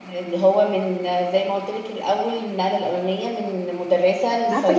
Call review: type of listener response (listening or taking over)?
taking over